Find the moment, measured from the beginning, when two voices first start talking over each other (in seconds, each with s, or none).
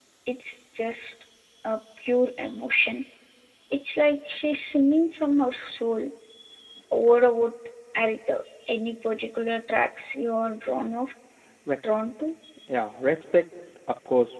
none